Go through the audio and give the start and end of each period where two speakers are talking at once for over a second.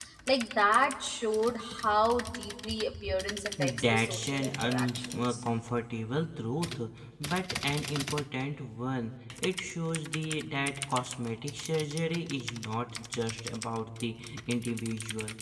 3.6-5.3

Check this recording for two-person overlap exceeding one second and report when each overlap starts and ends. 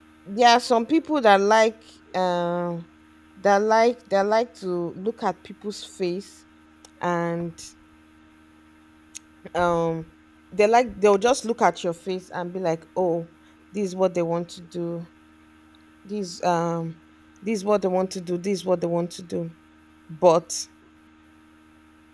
none

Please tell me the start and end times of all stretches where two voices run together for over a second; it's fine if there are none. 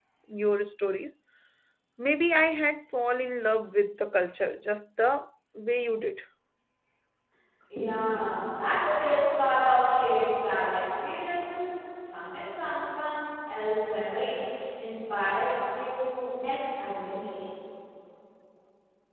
none

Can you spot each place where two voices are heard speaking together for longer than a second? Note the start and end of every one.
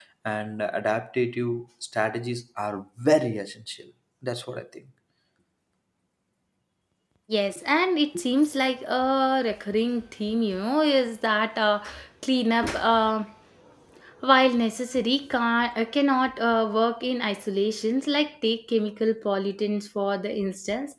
none

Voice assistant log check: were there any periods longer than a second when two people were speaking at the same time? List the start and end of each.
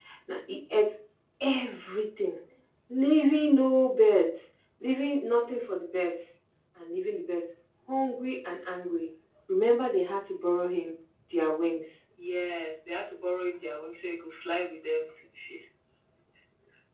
none

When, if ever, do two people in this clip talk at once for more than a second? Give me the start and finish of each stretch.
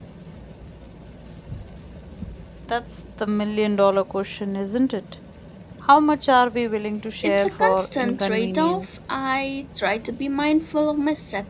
7.2-9.0

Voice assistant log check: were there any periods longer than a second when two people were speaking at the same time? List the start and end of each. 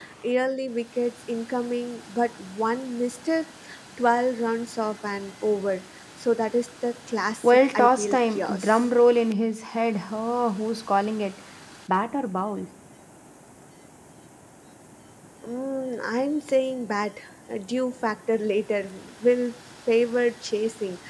7.4-8.8

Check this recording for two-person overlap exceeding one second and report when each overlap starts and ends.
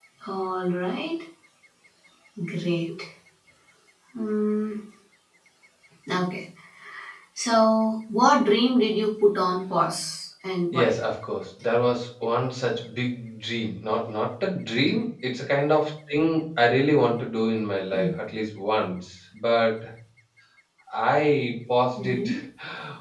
none

